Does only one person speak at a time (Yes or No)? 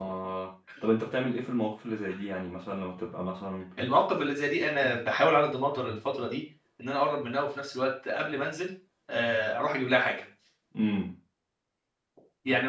Yes